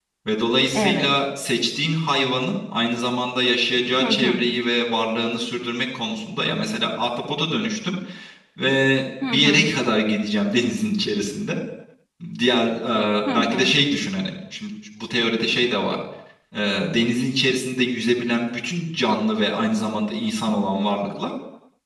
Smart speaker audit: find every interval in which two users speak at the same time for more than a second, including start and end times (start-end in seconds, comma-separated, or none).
none